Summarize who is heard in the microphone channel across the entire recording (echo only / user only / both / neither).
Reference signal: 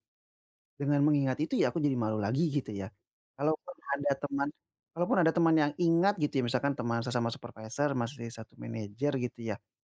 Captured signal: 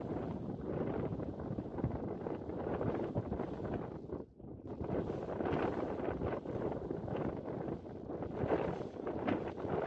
neither